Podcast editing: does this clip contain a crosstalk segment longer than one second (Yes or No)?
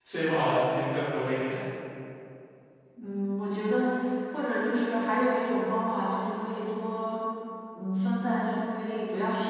No